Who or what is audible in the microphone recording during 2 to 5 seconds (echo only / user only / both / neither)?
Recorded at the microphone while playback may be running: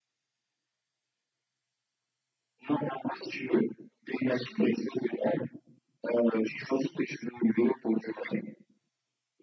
echo only